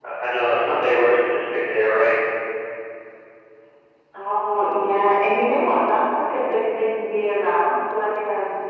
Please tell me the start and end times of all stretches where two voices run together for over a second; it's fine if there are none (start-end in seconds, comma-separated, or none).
none